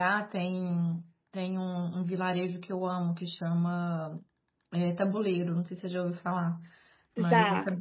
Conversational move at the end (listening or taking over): listening